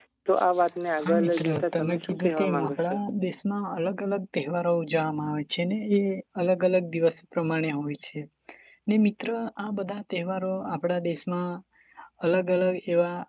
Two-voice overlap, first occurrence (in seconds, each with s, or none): 1.0 s